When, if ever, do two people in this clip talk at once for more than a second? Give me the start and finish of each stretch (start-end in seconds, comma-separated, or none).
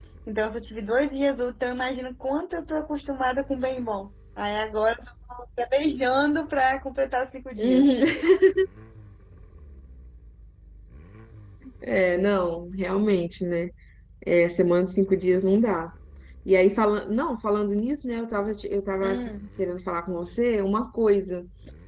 none